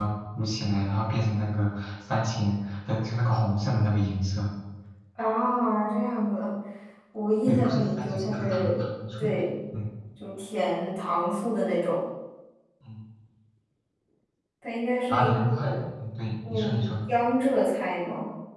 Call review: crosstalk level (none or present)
present